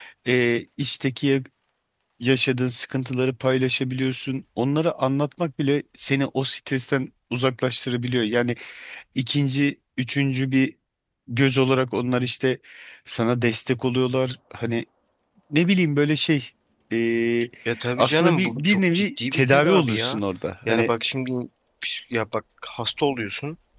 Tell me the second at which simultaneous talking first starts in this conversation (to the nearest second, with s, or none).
18 s